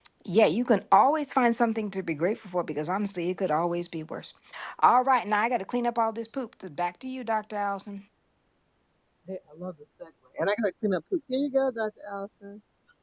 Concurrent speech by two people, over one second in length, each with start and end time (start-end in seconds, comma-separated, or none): none